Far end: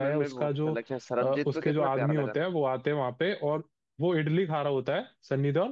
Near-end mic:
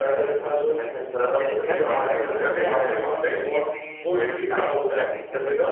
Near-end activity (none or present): present